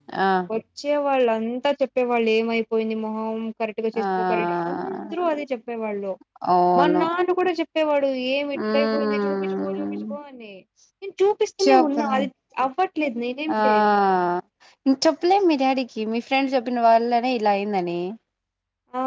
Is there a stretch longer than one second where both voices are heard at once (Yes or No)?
Yes